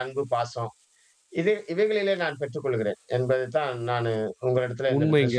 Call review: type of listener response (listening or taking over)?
taking over